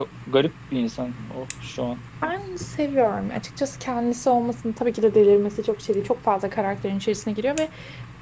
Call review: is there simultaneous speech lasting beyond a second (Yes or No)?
No